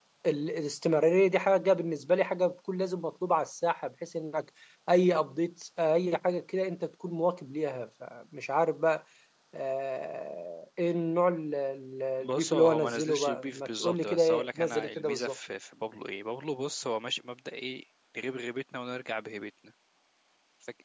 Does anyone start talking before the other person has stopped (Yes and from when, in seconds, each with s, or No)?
Yes, from 12.2 s